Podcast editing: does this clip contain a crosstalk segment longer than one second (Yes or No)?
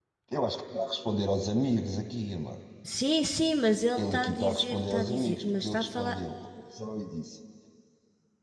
Yes